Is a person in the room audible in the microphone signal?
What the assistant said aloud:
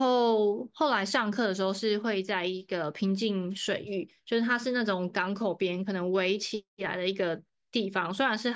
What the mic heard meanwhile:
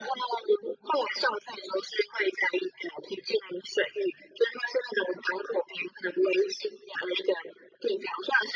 No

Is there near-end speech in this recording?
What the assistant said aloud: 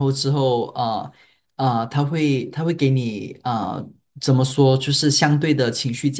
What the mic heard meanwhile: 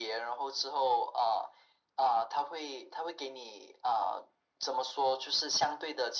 No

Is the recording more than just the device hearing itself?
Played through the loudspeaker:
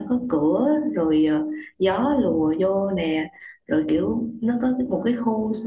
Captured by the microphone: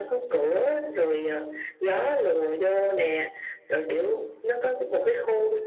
No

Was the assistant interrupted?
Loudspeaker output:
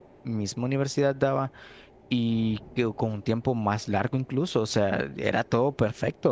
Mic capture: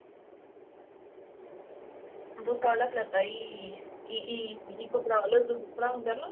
Yes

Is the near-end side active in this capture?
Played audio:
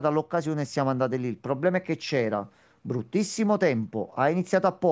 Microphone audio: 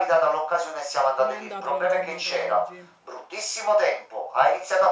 Yes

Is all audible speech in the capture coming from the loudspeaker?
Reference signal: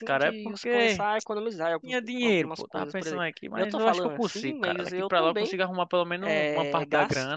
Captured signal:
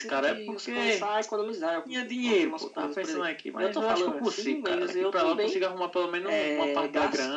Yes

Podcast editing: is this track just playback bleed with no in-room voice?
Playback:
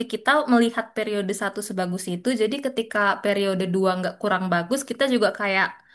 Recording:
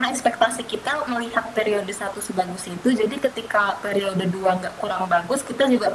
Yes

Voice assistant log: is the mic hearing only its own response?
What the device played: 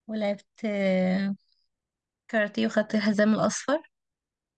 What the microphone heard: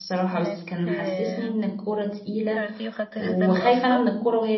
No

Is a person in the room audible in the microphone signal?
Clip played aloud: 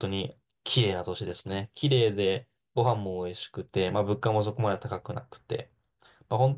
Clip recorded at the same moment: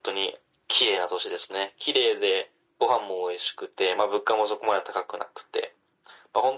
No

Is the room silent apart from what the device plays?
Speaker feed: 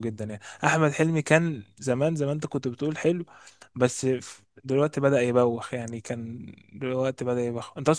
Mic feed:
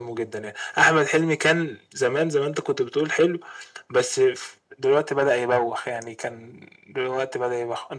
Yes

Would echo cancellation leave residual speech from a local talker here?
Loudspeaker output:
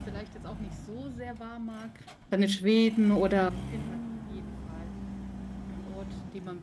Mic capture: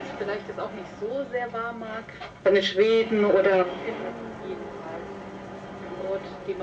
No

